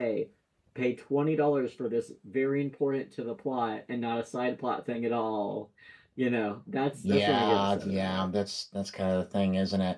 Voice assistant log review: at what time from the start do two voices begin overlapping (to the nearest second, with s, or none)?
7 s